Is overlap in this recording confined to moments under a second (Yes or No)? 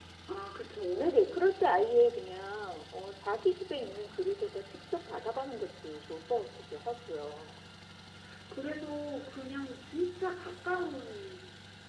Yes